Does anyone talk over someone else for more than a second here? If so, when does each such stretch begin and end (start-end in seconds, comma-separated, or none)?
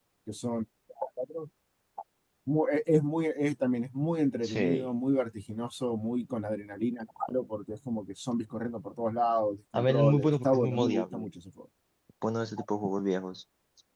9.7-11.3